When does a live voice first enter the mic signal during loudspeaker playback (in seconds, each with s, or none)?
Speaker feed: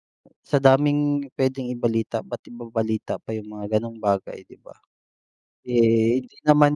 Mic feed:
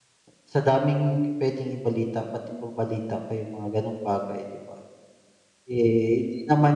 none